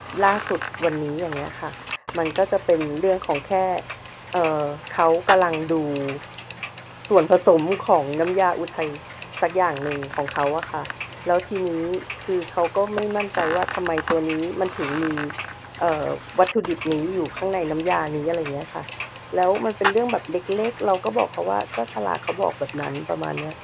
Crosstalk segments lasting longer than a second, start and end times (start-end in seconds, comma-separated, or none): none